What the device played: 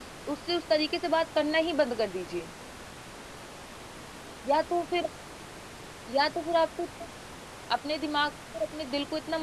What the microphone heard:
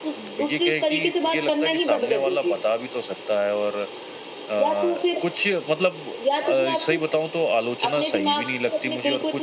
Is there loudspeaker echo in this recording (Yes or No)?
Yes